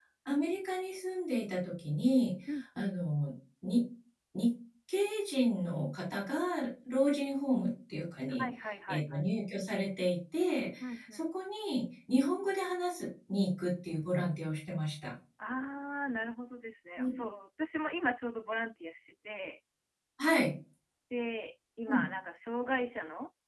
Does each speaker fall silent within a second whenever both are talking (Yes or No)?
Yes